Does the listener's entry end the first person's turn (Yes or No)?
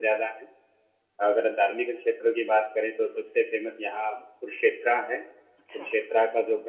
No